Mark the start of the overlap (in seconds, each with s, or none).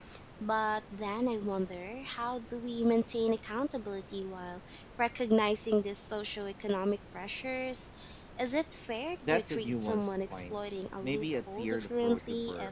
9.2 s